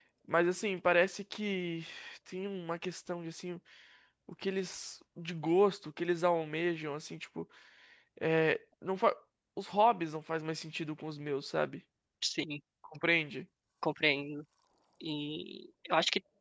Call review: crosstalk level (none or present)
none